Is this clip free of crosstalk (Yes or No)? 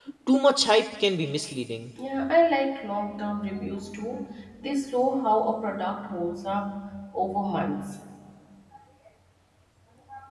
Yes